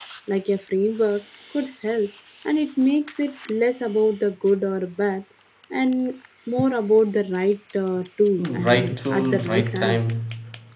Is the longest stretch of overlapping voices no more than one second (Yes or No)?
No